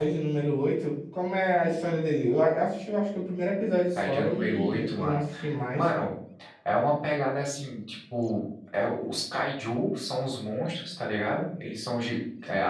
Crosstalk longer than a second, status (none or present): present